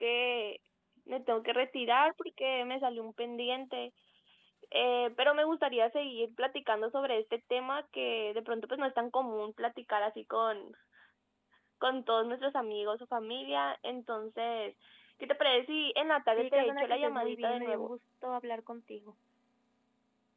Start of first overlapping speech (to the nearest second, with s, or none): 16 s